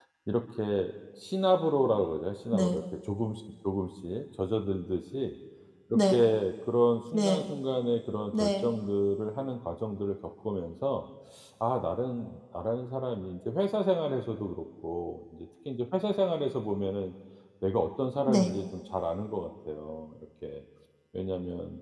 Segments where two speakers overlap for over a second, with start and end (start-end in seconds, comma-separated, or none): none